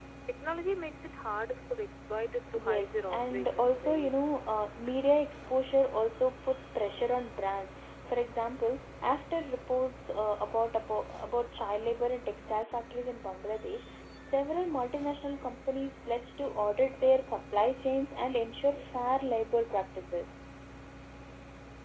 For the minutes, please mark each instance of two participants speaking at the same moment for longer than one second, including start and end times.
2.6-4.1

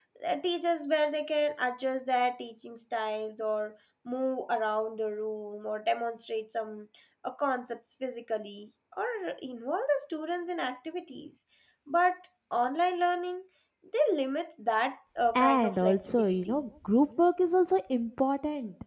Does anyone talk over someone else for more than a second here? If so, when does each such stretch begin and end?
15.3-16.6

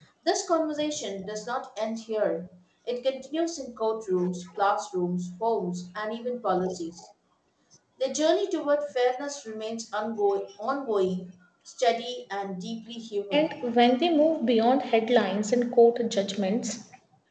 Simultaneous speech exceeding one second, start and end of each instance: none

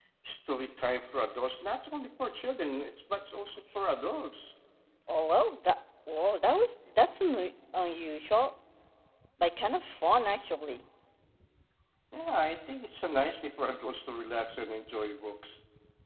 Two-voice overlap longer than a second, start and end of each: none

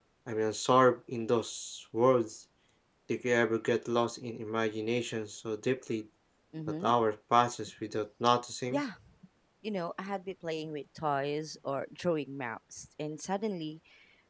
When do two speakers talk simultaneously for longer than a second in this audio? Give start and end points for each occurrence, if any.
none

